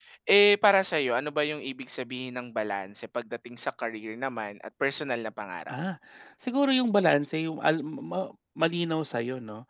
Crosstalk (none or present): none